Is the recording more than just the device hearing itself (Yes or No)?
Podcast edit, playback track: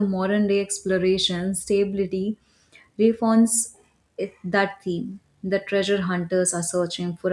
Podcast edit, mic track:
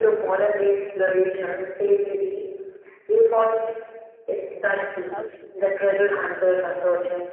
Yes